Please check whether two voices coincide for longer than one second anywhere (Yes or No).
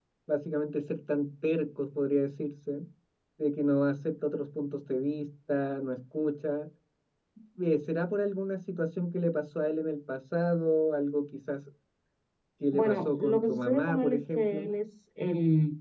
Yes